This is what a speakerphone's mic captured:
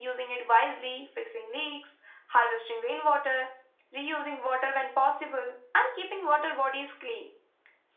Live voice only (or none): none